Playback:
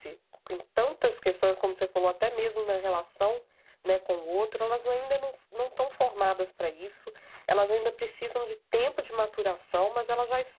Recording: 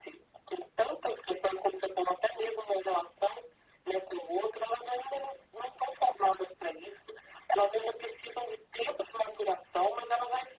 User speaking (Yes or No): No